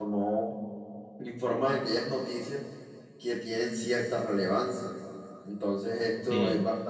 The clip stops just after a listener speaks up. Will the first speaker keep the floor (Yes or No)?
Yes